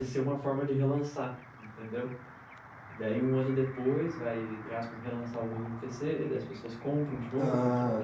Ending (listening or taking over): taking over